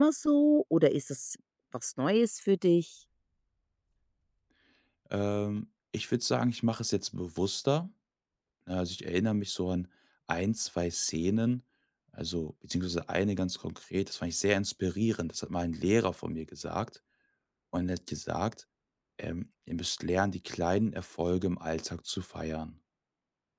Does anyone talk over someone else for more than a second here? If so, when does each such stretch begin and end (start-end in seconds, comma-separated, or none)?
none